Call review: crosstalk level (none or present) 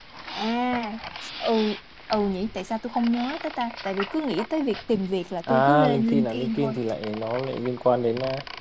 present